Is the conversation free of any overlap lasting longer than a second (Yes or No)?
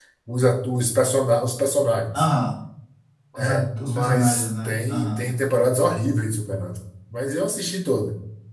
No